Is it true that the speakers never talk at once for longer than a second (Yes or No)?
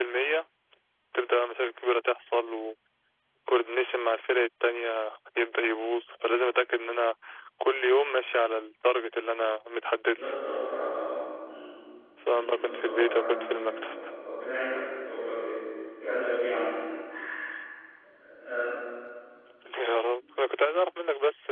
No